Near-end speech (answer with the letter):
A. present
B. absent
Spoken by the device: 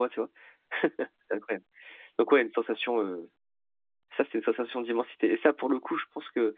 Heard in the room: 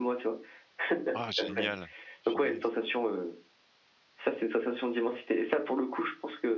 A